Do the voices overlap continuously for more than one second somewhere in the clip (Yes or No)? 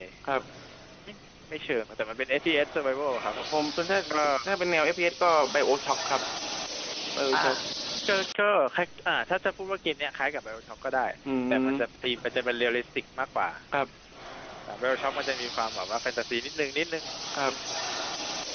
No